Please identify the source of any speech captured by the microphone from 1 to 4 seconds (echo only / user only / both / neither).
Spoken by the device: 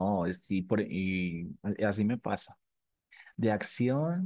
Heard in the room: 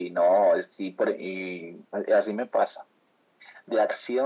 echo only